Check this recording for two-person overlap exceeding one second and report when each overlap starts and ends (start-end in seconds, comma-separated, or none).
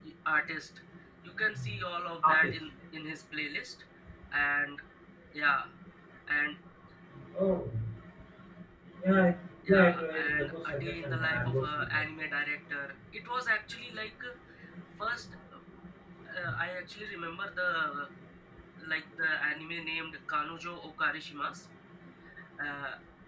9.7-12.1